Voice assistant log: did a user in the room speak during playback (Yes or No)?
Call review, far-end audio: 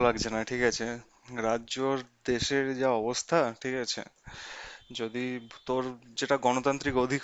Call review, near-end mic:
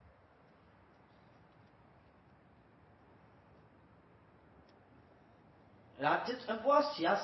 Yes